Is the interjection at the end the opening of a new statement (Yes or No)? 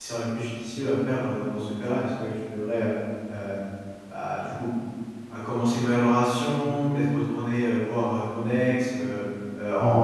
Yes